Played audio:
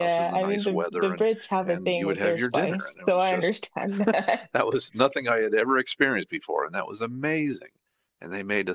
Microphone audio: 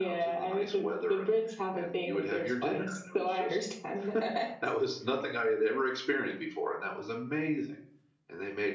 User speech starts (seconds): none

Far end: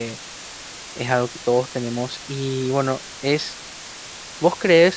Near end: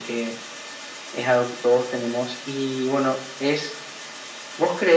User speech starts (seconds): none

